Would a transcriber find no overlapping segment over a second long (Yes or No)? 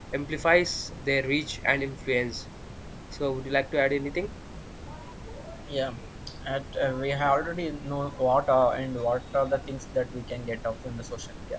Yes